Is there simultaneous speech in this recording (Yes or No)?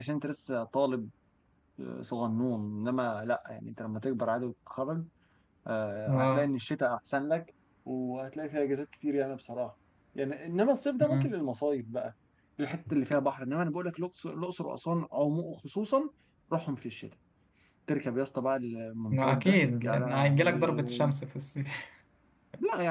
Yes